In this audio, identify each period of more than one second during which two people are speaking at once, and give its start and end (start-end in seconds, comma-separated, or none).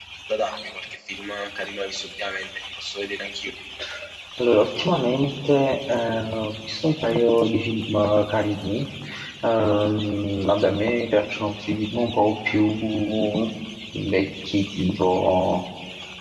none